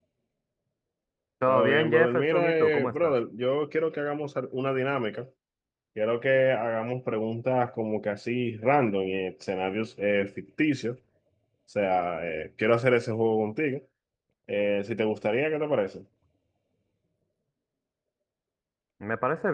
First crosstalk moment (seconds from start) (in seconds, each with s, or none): 1.5 s